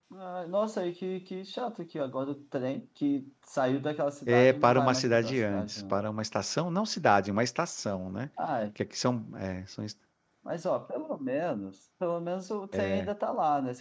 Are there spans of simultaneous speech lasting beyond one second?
Yes, from 4.3 s

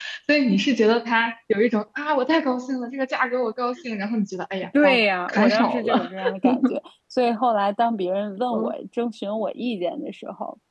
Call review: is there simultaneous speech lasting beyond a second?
Yes, from 4.7 s

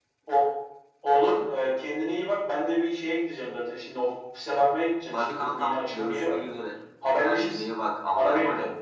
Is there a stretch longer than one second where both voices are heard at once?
Yes, from 5.1 s

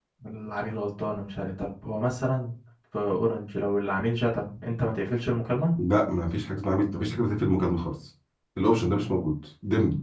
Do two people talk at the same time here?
No

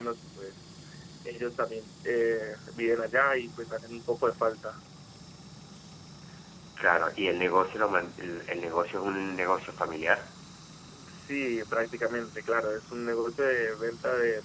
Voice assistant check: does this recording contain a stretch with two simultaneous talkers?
No

